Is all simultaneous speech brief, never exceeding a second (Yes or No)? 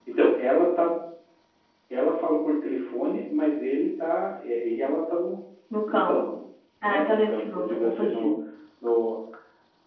No